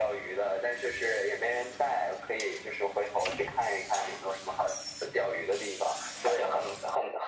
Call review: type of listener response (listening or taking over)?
listening